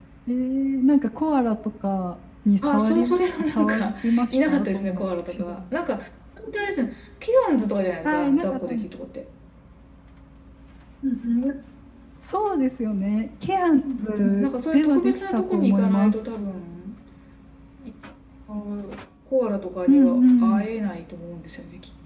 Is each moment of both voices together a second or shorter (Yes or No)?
No